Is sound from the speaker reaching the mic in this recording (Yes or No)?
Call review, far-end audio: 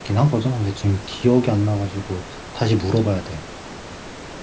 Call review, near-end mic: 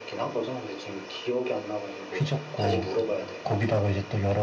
Yes